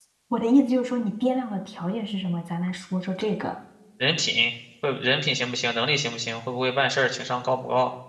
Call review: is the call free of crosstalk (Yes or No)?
Yes